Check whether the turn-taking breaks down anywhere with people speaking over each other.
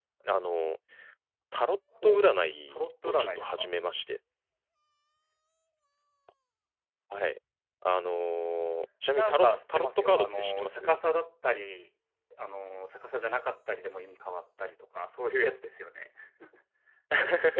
Yes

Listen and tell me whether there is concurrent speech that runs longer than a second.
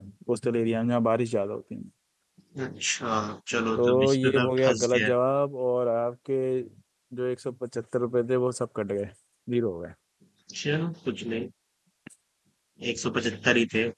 Yes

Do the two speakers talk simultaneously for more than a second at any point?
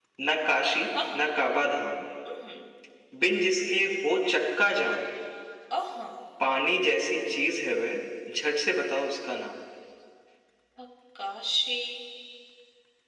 No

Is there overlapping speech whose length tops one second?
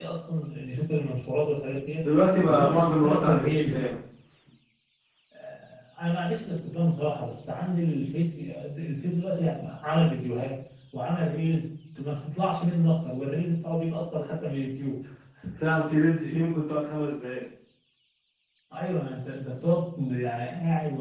Yes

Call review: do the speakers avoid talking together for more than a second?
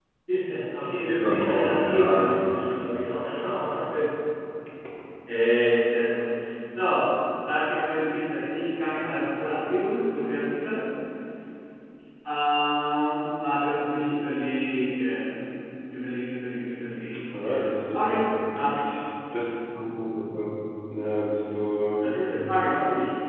No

